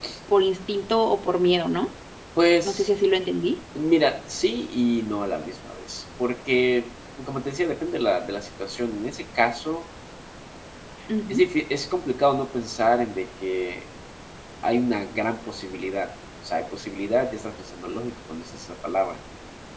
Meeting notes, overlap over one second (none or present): none